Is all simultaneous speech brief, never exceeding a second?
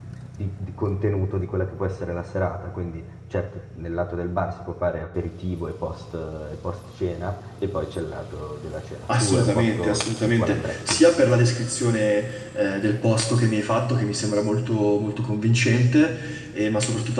No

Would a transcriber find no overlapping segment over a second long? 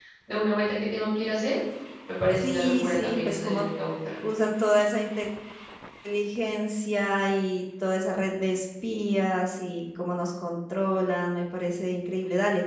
No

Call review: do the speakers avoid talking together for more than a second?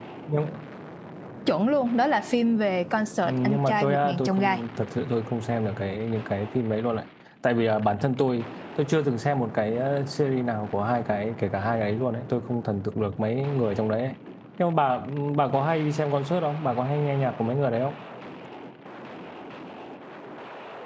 No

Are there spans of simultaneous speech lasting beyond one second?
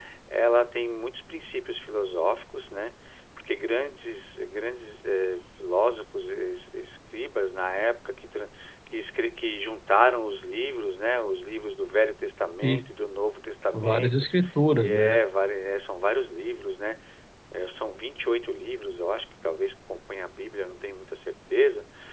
No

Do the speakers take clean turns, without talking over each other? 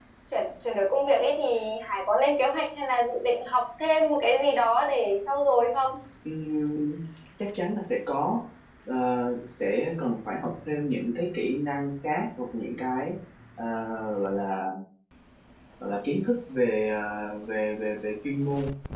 Yes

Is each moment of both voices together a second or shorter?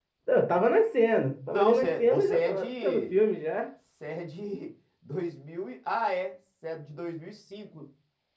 No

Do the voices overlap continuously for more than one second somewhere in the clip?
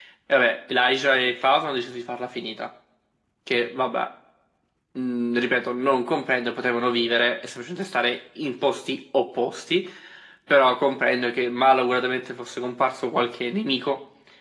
No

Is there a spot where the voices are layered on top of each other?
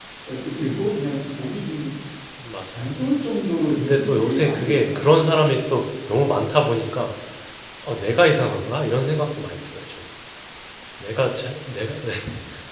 Yes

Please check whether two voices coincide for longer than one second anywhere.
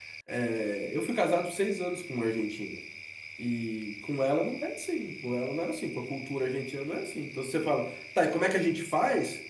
No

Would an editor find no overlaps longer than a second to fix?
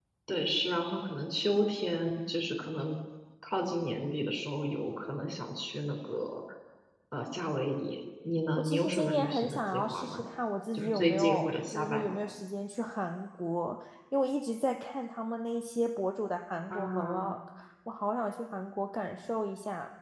No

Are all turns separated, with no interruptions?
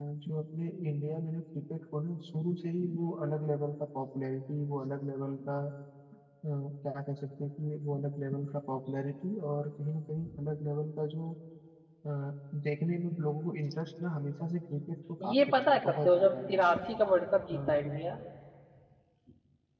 No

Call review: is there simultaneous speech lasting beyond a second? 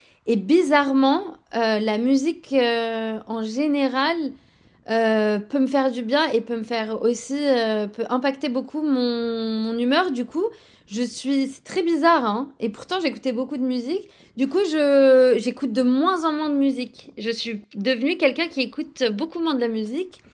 No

